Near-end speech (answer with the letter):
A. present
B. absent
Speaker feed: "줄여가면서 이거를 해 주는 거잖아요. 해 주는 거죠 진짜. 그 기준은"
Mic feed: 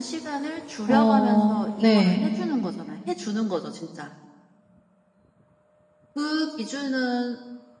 A